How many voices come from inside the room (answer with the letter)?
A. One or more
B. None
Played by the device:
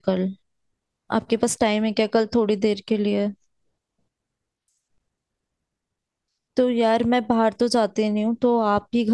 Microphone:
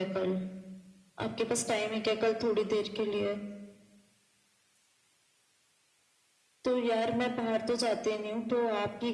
B